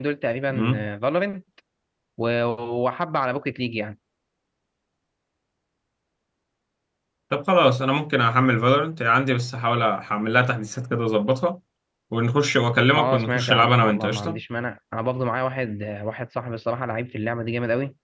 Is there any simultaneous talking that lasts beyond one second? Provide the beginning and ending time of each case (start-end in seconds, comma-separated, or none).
13.0-14.4